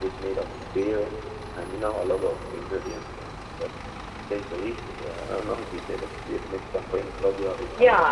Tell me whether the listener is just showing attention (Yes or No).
No